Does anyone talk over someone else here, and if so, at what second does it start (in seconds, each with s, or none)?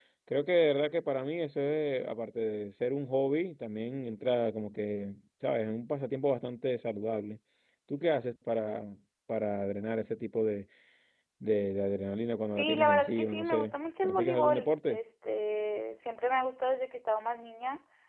12.5 s